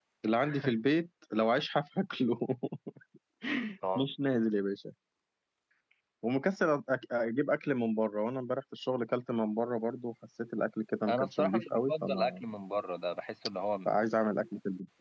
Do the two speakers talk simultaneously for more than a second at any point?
Yes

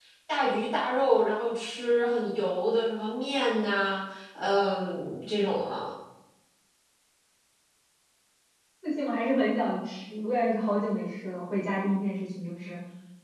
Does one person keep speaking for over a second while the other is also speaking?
No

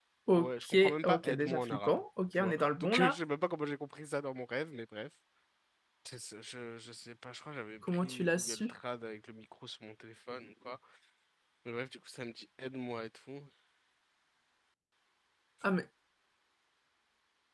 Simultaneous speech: Yes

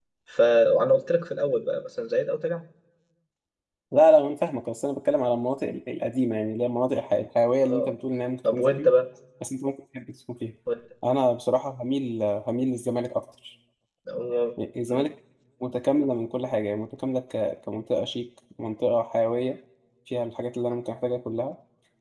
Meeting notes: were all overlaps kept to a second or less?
Yes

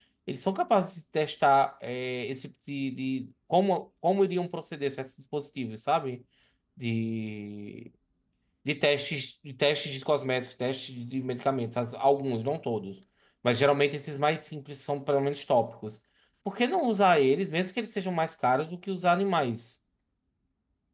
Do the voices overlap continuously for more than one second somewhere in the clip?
No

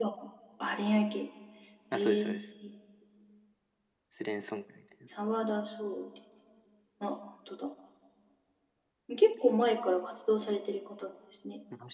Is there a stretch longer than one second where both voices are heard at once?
No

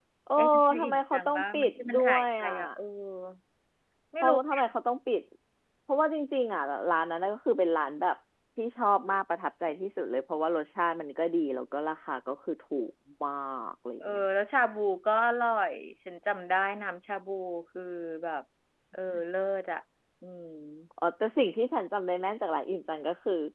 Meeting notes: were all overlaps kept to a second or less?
No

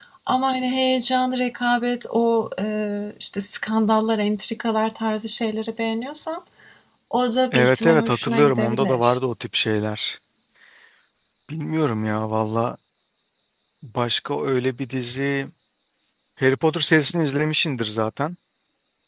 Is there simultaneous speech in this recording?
Yes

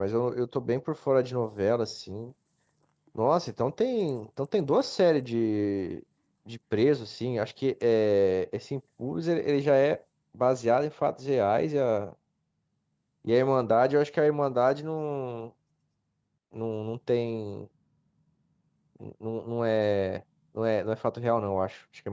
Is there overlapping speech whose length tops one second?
No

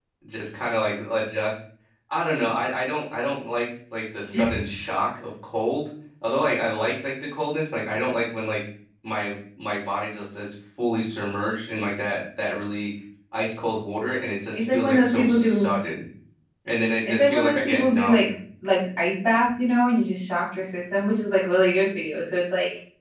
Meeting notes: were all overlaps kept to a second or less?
No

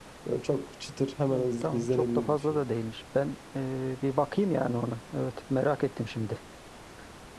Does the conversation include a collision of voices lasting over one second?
Yes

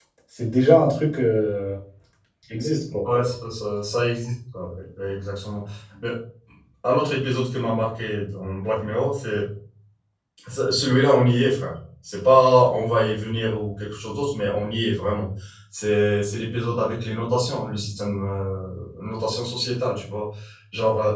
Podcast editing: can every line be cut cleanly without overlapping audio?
Yes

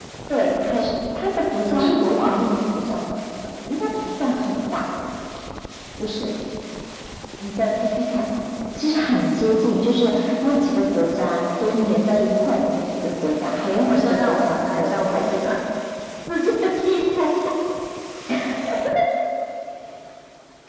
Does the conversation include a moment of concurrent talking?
Yes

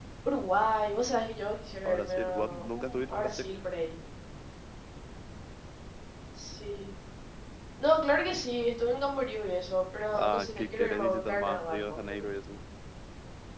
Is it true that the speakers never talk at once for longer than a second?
No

